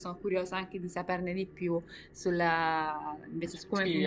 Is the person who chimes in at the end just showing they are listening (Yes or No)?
No